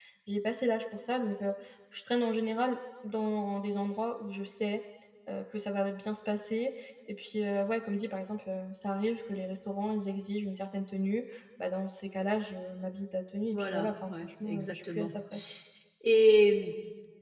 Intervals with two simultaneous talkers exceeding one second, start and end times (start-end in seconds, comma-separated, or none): 13.5-15.1